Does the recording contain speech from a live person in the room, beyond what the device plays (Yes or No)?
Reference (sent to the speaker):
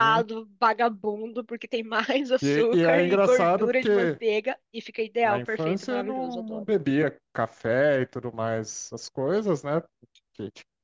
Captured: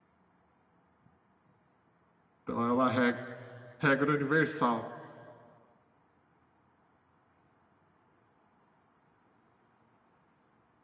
Yes